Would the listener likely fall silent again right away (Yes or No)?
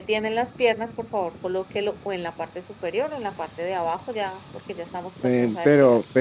No